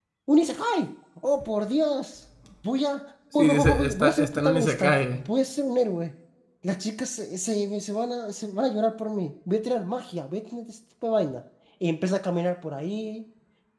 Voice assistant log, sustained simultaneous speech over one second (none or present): present